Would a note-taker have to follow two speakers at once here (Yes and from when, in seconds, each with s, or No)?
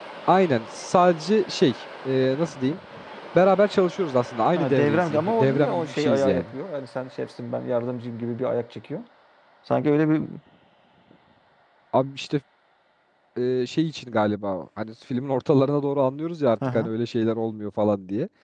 Yes, from 4.6 s